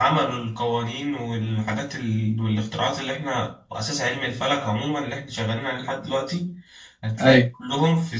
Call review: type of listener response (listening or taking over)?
listening